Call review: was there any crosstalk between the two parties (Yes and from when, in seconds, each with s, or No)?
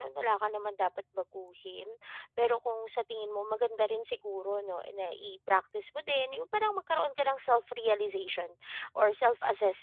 No